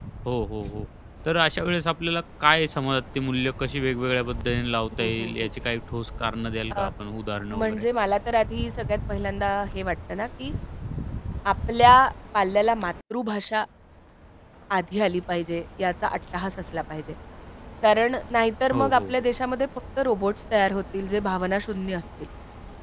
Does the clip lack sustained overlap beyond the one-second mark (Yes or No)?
Yes